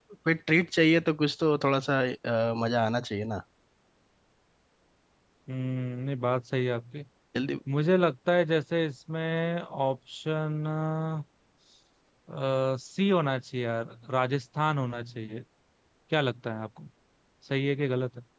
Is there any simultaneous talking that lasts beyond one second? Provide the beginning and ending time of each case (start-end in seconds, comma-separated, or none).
none